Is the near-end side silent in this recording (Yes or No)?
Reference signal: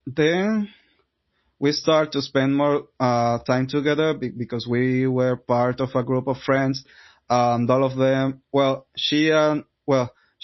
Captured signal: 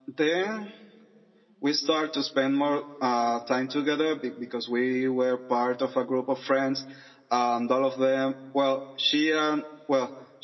Yes